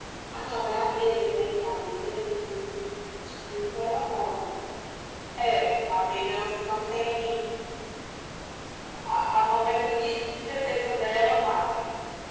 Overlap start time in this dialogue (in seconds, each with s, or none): none